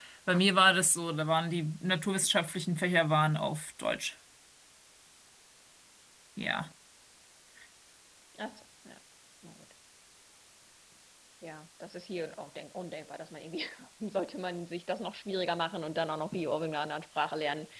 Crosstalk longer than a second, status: none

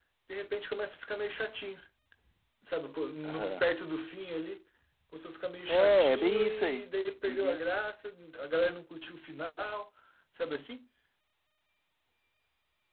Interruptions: present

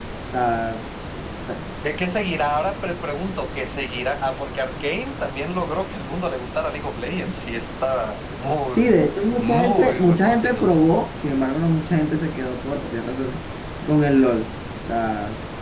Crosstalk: present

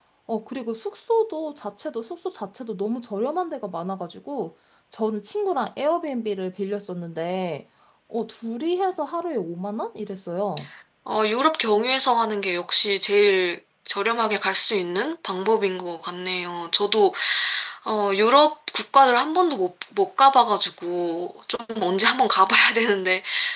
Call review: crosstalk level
none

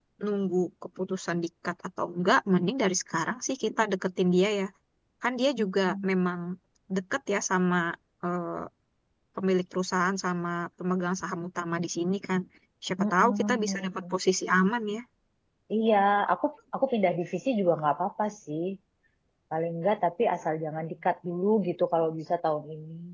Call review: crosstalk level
present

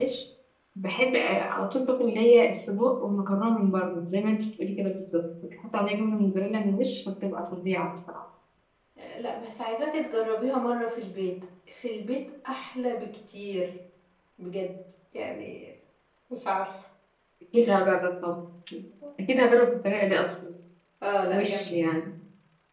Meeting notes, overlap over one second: none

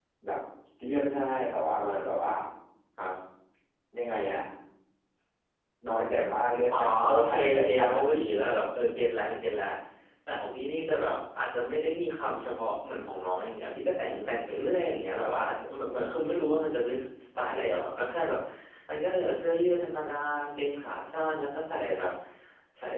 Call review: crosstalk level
present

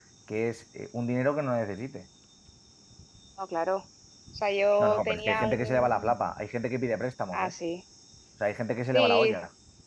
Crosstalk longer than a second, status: present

